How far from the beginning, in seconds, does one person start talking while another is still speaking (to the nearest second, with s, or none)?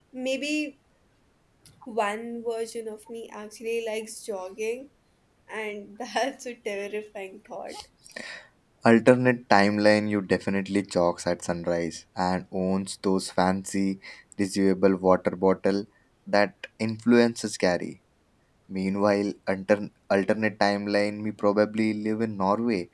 none